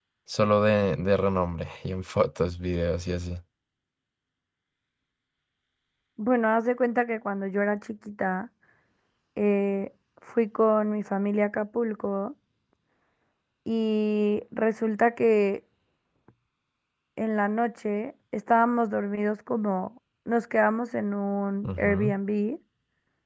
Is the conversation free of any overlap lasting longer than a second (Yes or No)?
Yes